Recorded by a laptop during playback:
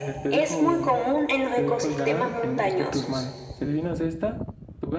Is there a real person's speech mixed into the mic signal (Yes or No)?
Yes